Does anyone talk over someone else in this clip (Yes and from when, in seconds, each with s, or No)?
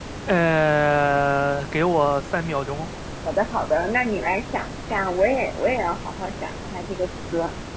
No